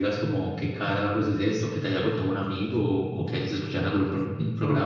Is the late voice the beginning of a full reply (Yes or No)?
Yes